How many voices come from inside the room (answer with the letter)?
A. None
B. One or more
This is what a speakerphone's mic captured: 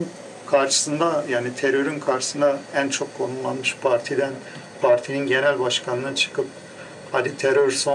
A